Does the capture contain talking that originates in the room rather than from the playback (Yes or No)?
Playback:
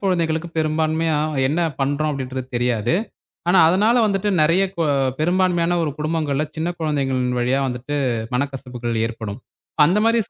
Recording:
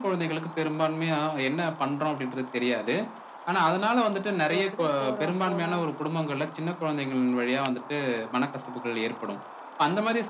Yes